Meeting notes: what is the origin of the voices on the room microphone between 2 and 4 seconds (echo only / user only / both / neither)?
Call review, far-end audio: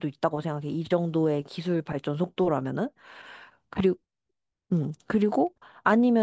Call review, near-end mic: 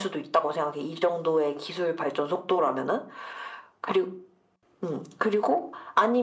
echo only